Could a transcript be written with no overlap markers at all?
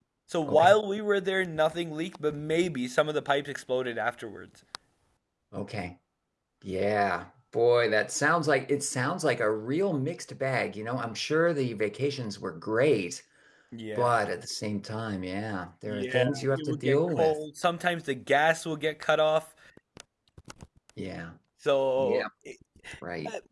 No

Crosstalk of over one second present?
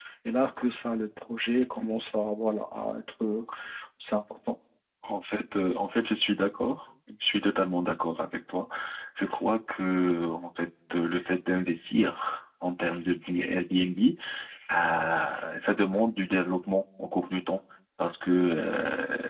No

